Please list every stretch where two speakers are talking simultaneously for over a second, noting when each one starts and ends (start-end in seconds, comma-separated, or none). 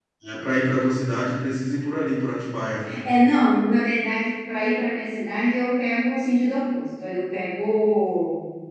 none